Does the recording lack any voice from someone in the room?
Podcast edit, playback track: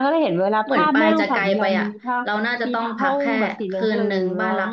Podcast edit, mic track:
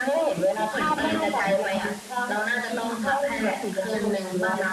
Yes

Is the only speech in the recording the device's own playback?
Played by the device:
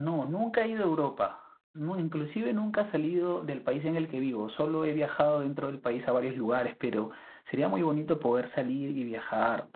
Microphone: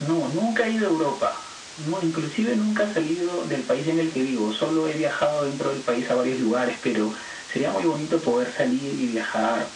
Yes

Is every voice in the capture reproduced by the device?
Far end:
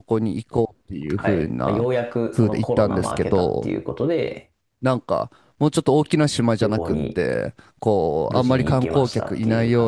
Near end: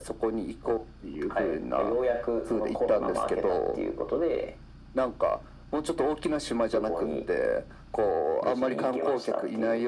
Yes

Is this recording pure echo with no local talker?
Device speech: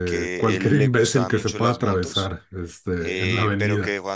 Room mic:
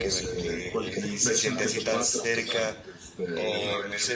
No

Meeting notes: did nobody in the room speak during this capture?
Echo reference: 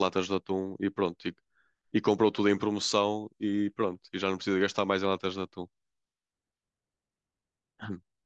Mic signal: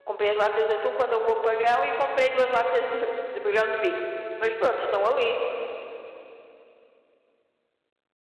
No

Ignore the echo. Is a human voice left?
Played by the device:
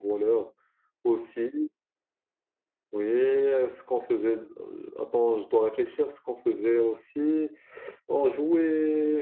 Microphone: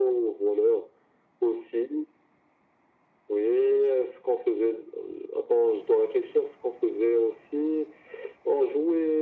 No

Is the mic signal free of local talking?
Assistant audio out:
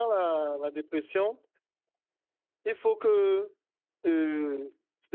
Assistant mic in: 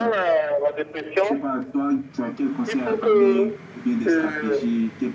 No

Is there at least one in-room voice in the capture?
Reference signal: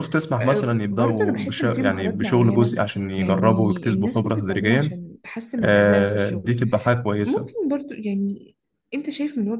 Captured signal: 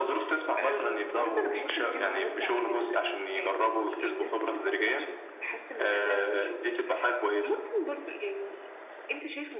No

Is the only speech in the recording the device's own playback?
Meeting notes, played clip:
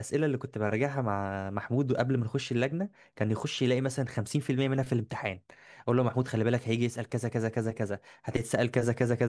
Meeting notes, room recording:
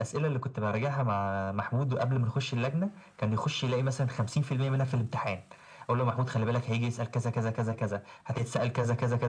Yes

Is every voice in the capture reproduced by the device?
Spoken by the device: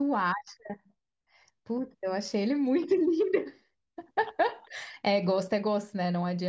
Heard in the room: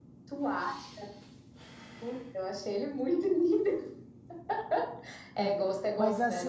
No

